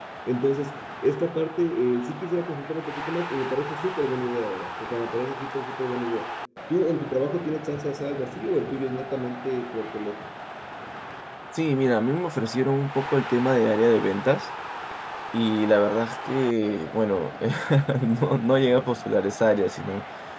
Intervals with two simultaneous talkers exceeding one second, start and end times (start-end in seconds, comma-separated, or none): none